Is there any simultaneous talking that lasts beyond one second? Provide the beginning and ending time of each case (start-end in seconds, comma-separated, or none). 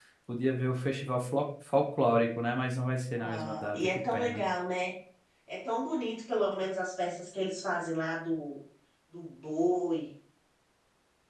3.2-4.4